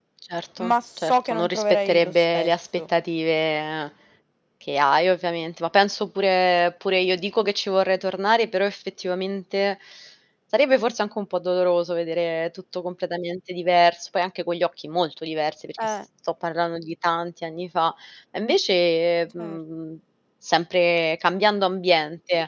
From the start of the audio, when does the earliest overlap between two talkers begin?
1 s

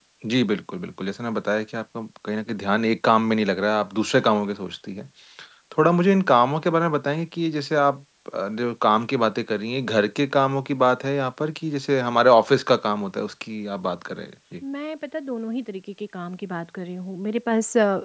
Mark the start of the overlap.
none

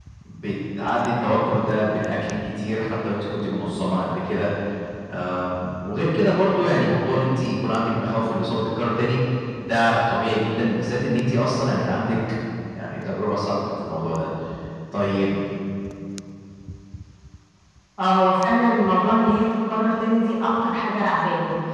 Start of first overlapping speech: none

